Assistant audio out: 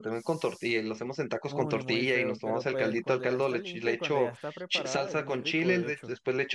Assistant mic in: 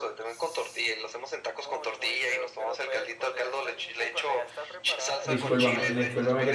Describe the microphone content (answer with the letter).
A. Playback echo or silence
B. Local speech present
B